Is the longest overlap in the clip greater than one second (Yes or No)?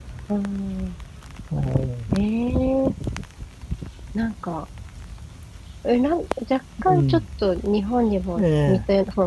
No